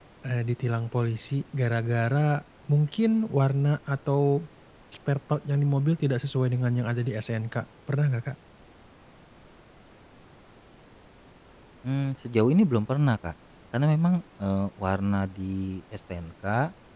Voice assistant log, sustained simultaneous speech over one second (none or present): none